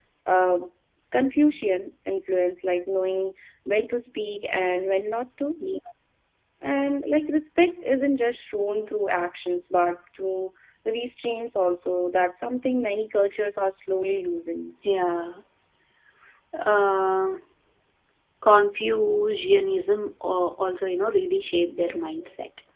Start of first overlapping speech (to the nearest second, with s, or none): none